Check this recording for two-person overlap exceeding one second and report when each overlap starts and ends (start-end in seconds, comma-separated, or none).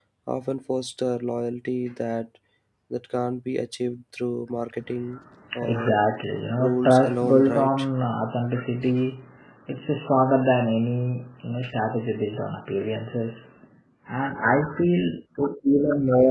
6.6-7.8